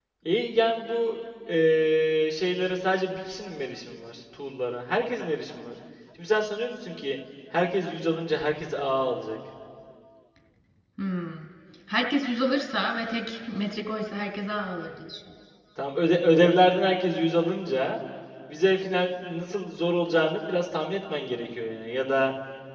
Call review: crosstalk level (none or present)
none